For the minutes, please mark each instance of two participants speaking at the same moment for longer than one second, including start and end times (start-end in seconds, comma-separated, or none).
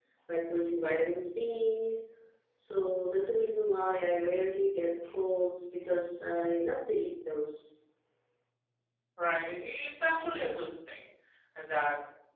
none